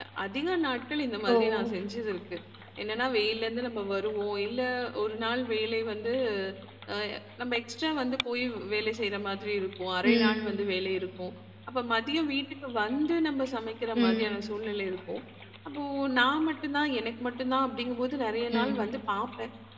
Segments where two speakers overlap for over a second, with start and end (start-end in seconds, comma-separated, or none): none